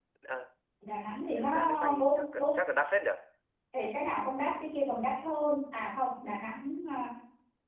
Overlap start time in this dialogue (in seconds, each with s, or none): 1.2 s